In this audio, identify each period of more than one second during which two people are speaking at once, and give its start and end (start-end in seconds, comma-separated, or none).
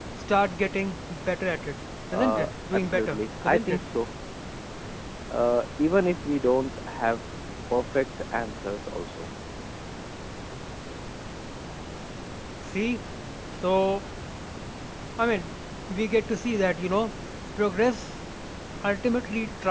2.1-3.8